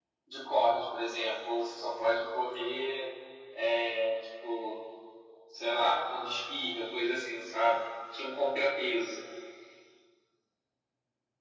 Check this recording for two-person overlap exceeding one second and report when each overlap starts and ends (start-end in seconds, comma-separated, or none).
none